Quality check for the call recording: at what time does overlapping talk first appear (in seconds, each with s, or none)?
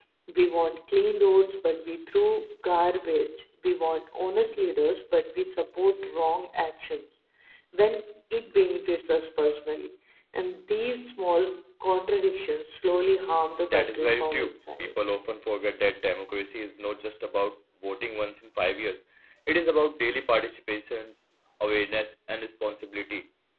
13.5 s